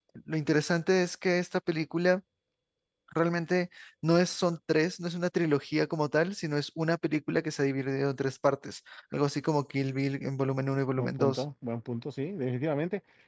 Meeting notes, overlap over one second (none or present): none